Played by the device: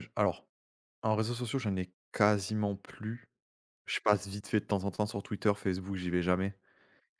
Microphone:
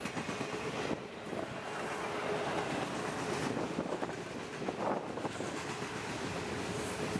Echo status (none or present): none